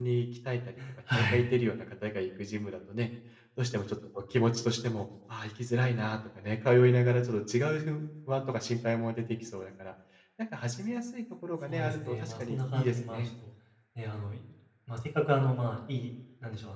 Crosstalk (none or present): present